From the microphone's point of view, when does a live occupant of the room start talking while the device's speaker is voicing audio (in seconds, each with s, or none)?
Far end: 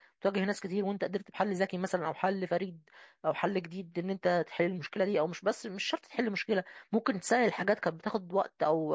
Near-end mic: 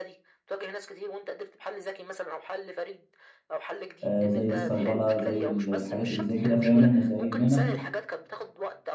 4.0 s